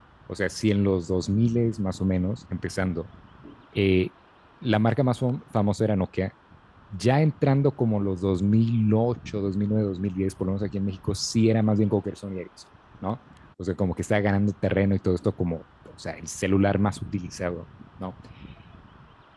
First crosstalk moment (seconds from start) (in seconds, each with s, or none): none